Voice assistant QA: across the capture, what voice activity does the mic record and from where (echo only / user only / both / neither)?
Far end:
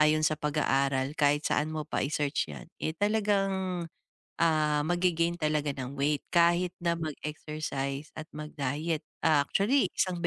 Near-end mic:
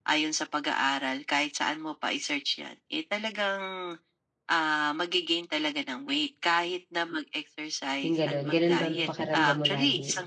both